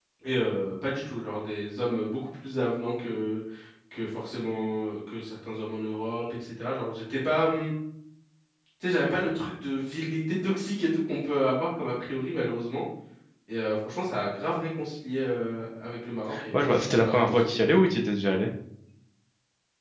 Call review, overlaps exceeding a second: present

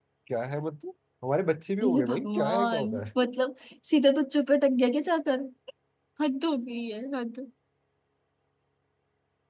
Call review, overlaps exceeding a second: present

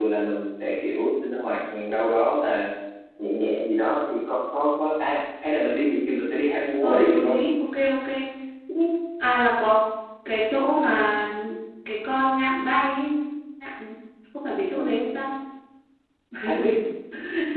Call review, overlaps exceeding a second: none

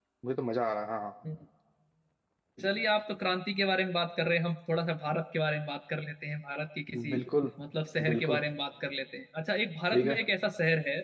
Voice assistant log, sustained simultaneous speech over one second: none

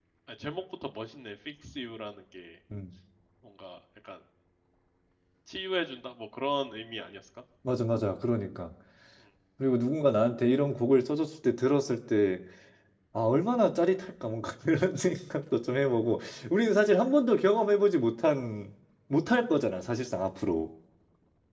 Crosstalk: none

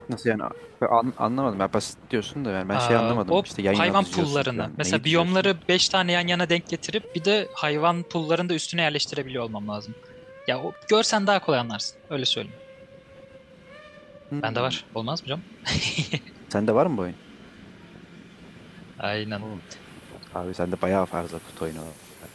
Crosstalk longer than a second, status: present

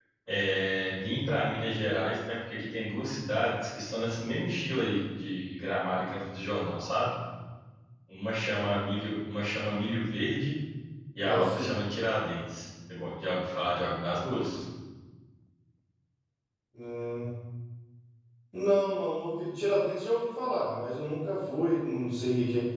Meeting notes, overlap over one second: none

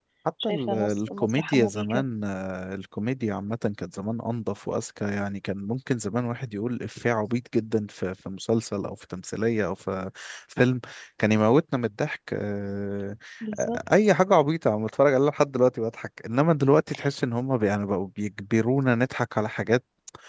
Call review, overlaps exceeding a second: present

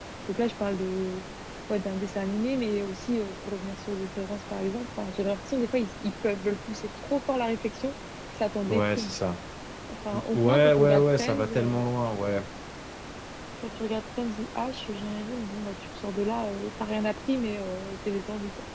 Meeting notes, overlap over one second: present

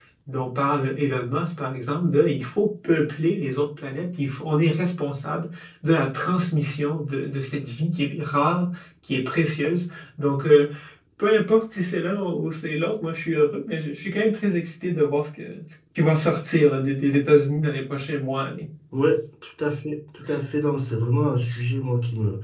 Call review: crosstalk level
none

